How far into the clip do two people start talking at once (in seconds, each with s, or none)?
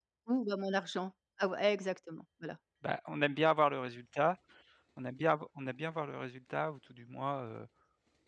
none